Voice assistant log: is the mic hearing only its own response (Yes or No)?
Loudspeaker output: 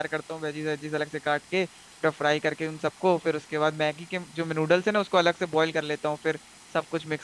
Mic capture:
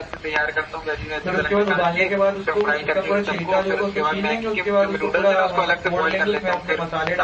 No